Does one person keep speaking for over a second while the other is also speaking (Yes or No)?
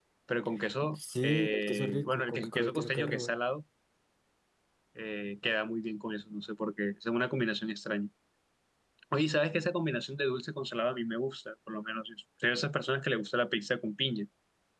Yes